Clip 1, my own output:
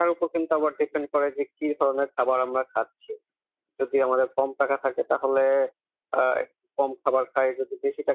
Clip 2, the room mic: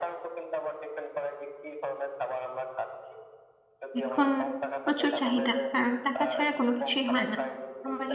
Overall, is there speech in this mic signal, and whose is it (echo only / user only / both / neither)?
both